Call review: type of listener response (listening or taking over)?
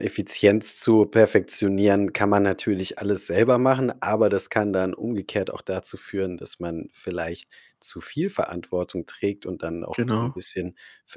listening